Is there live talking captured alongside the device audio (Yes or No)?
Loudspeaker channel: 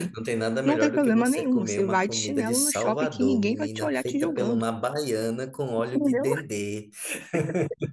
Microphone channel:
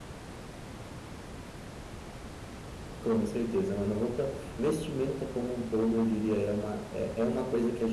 Yes